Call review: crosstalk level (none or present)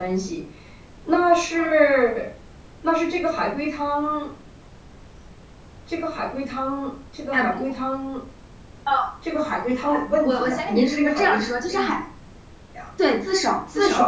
present